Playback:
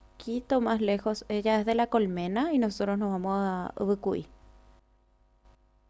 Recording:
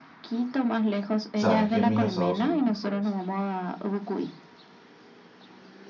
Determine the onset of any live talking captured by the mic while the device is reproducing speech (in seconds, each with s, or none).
1.3 s